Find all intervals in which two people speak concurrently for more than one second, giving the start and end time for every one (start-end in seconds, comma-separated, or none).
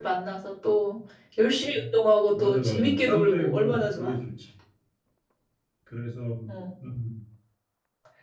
2.4-4.1